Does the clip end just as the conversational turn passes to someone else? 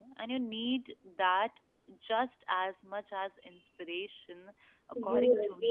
Yes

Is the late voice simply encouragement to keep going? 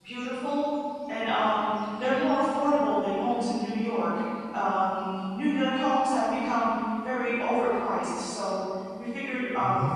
Yes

